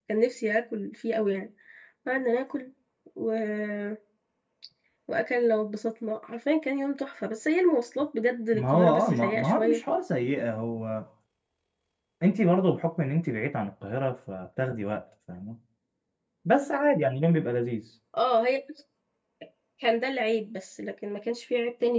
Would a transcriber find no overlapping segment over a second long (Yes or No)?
No